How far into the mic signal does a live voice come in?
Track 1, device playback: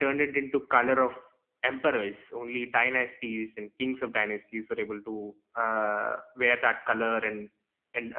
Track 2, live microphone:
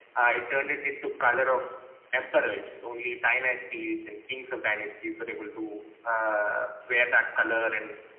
none

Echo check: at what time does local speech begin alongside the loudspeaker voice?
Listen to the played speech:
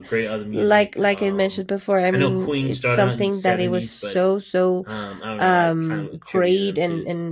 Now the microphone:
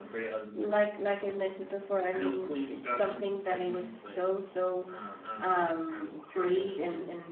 none

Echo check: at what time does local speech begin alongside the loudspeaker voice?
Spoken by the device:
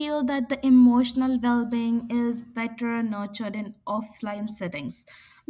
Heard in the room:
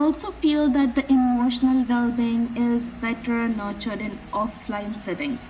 none

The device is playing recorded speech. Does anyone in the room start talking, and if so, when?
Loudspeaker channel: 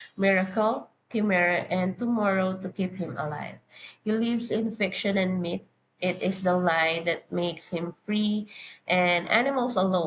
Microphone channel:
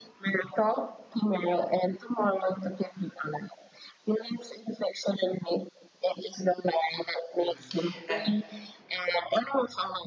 7.4 s

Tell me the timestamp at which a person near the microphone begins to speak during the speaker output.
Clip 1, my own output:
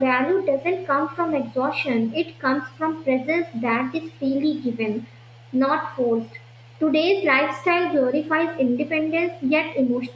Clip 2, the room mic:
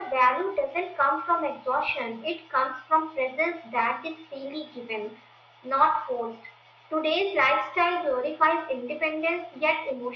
none

